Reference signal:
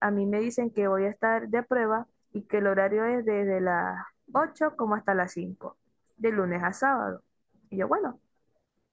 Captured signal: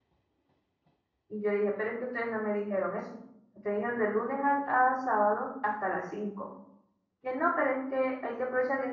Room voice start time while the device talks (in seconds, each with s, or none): 1.3 s